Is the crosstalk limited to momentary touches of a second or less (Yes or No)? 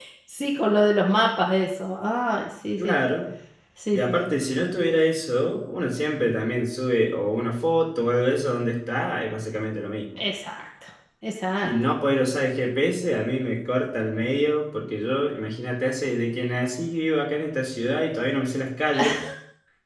Yes